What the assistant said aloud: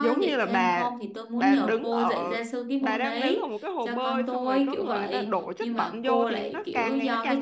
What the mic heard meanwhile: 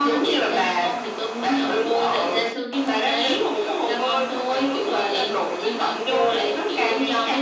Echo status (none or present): present